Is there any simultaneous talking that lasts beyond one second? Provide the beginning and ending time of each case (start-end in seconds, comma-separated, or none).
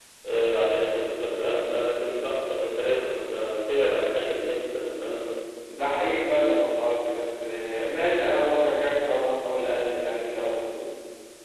none